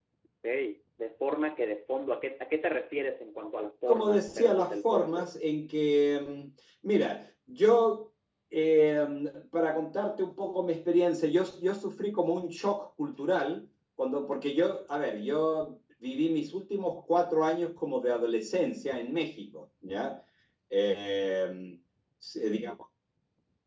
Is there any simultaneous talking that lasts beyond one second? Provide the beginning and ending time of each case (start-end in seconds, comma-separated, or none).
3.9-5.3